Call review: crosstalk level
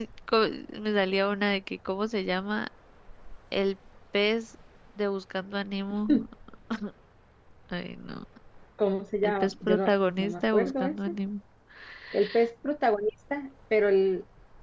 present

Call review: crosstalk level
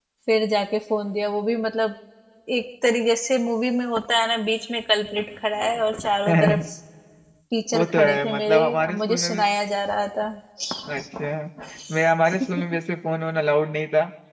present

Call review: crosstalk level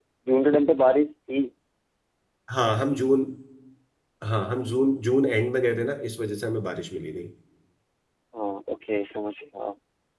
none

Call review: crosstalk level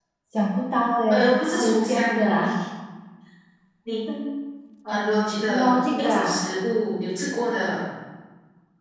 present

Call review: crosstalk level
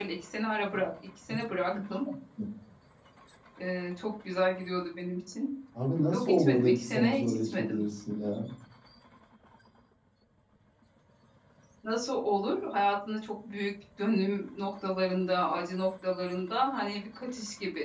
present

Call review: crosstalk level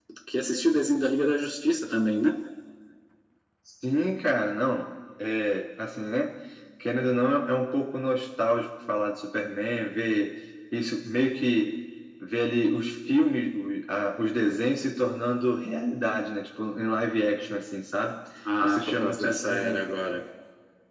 present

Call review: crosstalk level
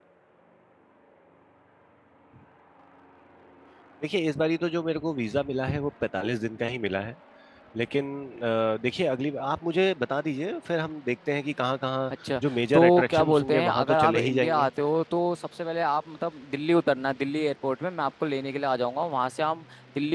present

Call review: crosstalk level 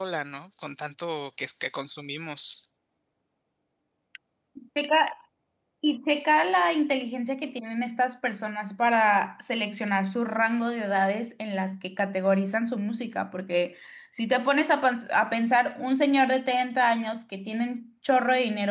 none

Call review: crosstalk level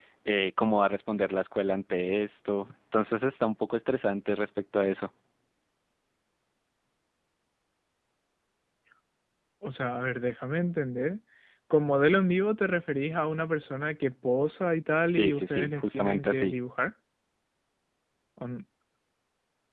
present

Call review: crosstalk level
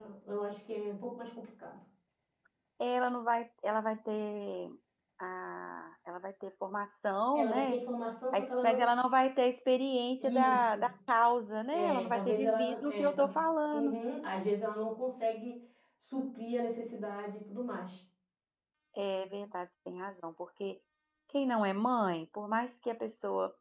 present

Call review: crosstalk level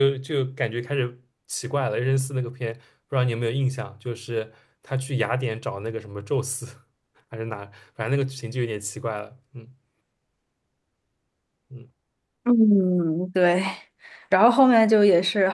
none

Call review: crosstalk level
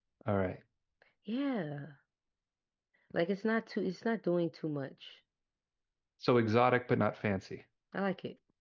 none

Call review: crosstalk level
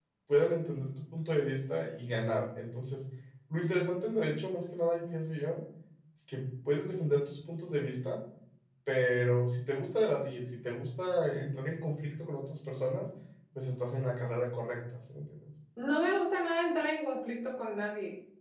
none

